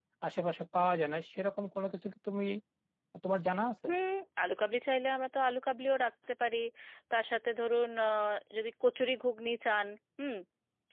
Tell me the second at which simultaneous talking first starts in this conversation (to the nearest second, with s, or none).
none